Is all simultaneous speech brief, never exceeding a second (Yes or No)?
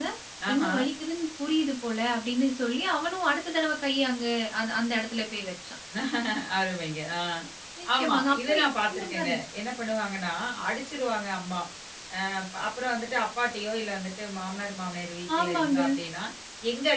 No